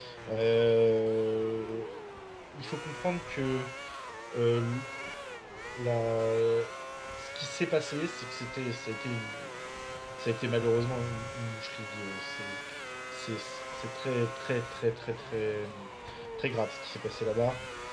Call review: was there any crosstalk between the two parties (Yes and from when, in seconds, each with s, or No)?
No